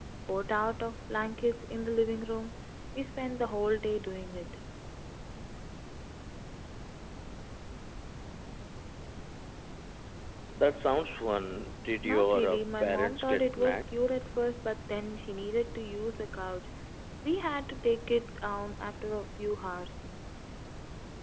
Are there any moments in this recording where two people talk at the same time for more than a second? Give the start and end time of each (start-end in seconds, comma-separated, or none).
12.0-13.8